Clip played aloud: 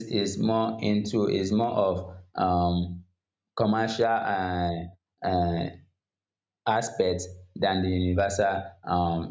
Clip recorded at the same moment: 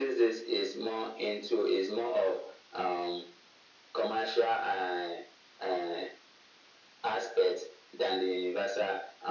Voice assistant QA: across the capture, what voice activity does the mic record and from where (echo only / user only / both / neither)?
echo only